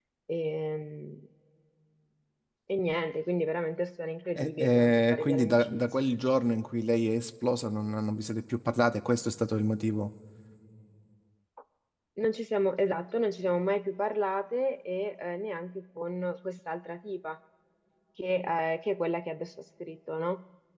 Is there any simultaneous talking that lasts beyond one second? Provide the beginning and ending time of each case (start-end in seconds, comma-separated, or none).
4.4-5.8